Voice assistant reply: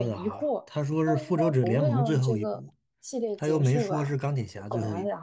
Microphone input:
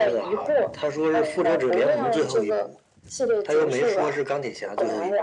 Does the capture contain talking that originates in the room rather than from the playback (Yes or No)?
No